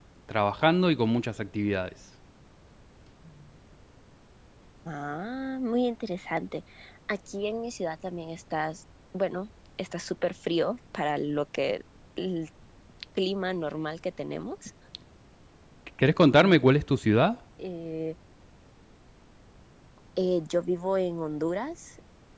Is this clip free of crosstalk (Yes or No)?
Yes